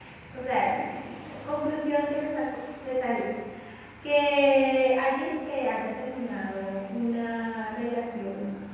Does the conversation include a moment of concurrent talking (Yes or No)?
No